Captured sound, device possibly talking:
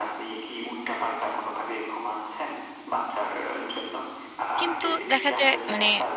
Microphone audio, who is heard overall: both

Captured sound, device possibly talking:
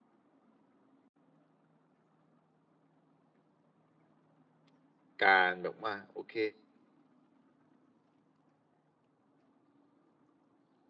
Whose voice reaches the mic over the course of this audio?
user only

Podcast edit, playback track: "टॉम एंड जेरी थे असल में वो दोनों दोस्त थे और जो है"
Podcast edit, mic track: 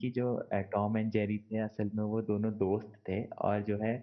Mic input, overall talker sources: echo only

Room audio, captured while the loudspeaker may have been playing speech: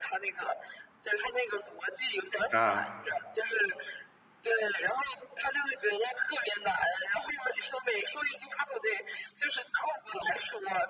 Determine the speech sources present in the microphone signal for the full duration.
both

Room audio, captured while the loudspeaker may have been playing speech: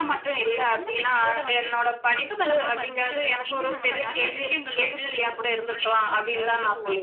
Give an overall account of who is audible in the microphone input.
both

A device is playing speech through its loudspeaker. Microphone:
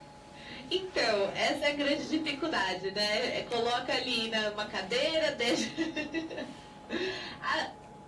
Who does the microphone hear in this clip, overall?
echo only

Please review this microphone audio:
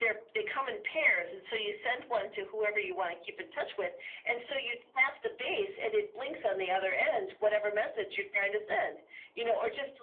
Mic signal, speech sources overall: echo only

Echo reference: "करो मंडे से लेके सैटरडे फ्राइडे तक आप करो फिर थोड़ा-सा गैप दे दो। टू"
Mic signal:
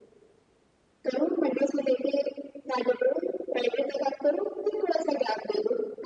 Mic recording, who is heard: echo only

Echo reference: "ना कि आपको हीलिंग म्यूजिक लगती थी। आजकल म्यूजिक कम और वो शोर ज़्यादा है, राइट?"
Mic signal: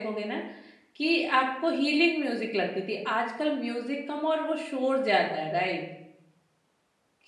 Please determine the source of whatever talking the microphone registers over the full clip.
echo only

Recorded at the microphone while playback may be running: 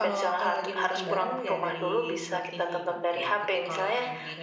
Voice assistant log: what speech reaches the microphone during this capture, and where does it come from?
both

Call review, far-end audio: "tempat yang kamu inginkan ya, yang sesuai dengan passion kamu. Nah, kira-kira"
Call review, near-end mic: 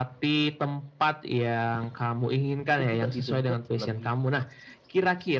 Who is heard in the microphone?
both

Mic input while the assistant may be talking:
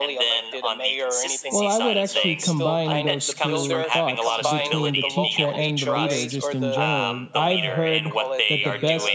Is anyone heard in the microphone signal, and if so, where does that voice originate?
both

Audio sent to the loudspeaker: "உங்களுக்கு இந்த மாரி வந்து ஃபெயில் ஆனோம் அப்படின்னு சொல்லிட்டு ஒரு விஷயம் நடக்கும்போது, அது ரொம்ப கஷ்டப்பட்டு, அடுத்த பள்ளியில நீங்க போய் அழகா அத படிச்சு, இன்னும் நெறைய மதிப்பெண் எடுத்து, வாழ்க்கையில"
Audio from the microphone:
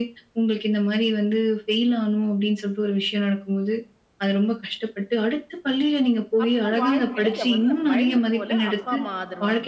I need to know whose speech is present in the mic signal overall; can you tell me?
both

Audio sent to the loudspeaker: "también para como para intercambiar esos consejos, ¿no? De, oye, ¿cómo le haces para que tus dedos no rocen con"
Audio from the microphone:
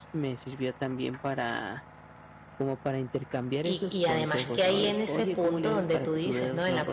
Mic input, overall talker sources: both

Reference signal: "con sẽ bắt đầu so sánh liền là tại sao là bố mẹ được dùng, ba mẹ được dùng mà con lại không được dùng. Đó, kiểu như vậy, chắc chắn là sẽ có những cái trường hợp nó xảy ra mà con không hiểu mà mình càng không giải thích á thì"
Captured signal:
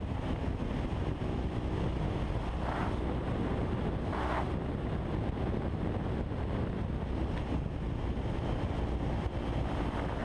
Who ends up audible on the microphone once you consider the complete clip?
neither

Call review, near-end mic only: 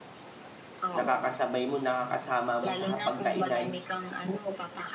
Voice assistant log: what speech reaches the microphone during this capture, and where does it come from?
both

